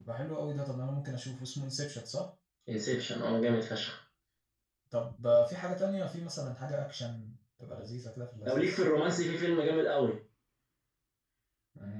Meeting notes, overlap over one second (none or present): none